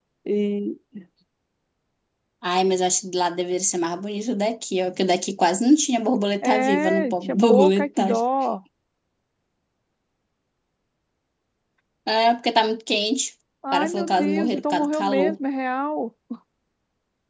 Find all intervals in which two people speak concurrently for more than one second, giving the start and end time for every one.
6.4-8.2, 13.7-15.4

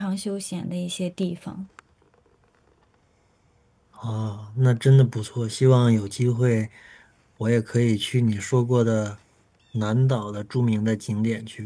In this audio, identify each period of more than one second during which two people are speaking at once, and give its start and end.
none

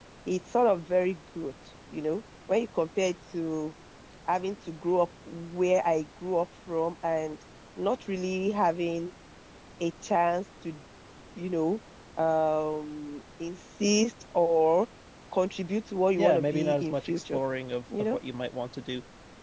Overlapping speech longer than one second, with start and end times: 16.2-17.4

